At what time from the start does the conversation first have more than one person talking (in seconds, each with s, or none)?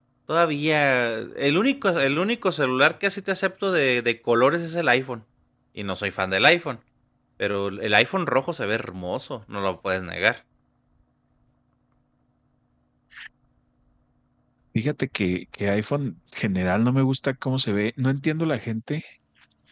none